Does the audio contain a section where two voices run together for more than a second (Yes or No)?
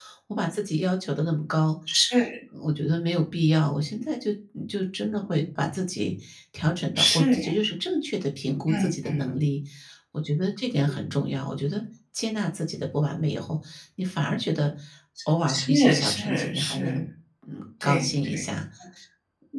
Yes